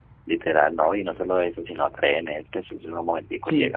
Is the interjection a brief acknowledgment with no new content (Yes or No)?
Yes